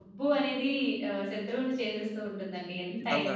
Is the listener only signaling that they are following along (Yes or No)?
No